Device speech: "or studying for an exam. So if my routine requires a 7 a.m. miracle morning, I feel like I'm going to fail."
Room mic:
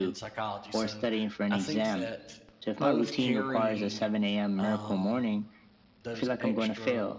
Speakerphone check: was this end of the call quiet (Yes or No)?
No